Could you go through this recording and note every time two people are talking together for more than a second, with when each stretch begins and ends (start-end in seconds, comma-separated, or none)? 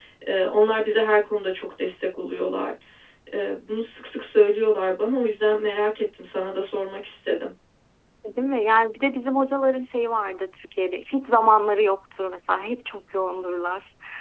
none